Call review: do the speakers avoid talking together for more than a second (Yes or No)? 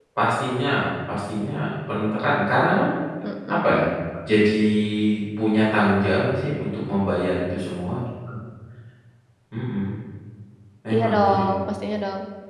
Yes